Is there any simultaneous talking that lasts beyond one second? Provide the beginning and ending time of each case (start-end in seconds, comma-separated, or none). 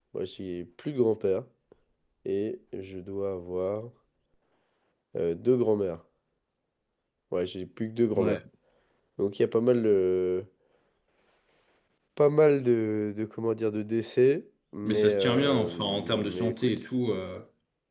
14.8-16.8